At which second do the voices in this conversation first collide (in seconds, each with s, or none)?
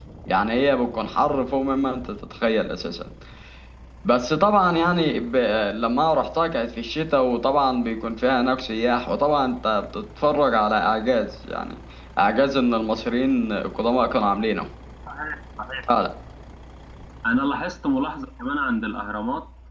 none